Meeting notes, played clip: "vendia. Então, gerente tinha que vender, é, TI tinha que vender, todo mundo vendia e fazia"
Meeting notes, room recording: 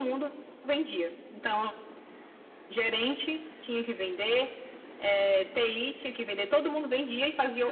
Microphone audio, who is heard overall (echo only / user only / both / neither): echo only